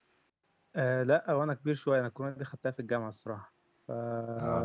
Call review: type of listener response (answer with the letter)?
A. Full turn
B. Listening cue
A